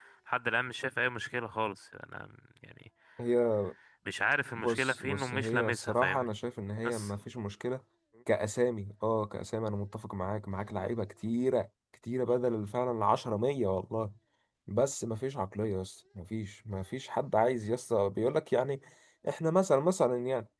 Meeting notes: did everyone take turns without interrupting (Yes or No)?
No